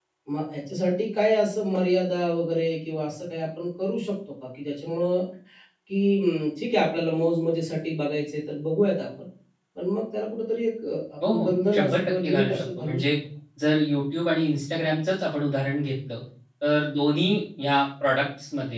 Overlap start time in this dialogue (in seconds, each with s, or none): 11.2 s